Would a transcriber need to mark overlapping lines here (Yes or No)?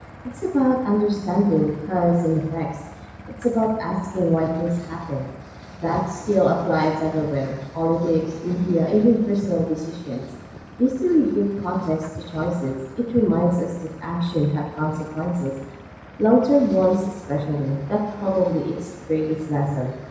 No